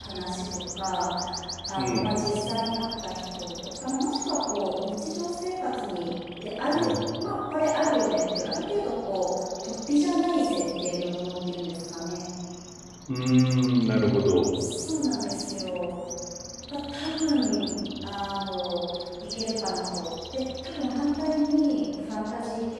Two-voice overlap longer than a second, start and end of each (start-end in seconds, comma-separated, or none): none